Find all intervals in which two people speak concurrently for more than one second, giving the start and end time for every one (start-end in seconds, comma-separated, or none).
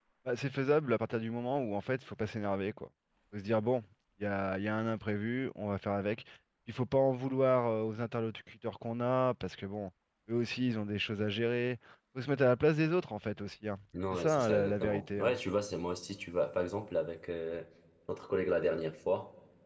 14.1-15.4